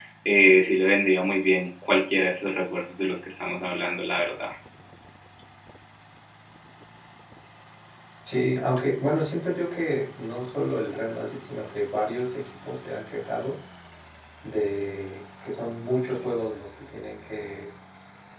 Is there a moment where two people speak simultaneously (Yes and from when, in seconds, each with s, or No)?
No